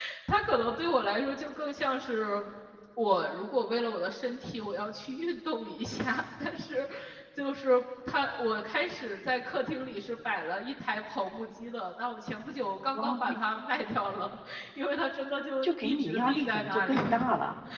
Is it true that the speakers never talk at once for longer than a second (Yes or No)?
No